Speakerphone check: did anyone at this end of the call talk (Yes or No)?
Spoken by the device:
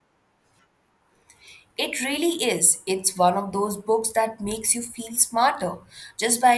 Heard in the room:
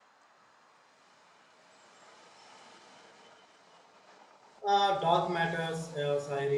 Yes